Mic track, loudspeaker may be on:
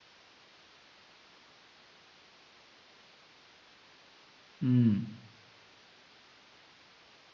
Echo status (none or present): none